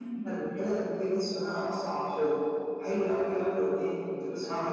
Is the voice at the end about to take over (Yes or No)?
No